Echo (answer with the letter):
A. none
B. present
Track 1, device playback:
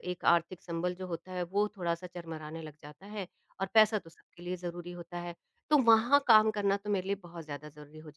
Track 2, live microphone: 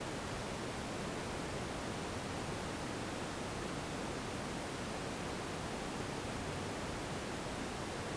A